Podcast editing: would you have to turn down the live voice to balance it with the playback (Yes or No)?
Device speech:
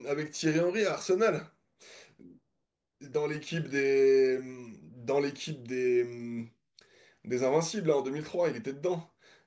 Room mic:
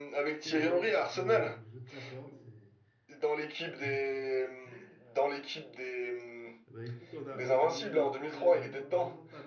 No